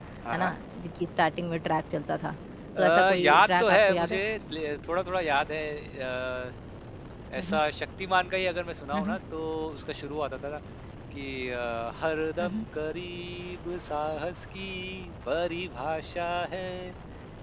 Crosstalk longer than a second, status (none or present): present